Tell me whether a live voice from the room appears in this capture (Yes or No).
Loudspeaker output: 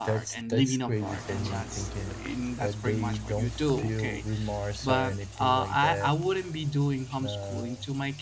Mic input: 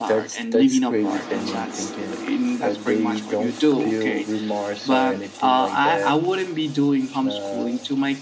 No